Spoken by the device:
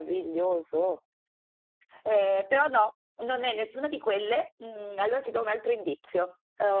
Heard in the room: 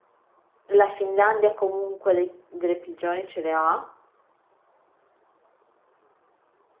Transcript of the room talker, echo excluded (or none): La Finlandia comunque dei- delle prigioni ce le ha.